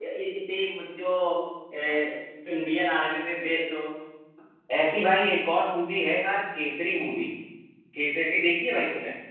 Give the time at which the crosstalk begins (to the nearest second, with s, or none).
none